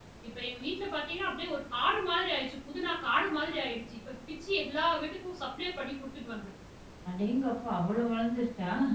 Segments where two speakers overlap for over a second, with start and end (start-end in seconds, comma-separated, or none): none